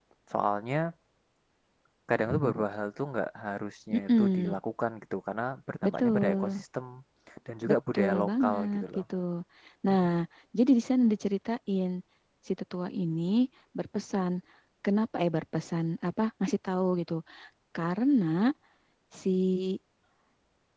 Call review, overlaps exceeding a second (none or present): present